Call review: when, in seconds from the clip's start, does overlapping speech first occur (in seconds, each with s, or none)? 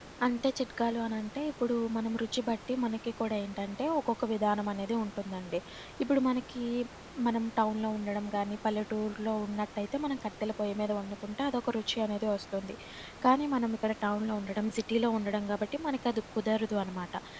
none